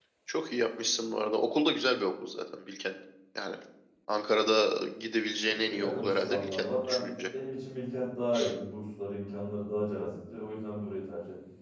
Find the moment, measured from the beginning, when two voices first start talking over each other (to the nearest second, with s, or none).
6 s